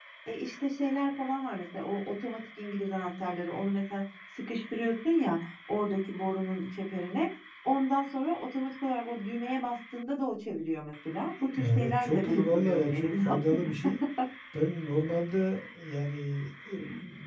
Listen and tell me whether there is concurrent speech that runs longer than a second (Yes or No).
Yes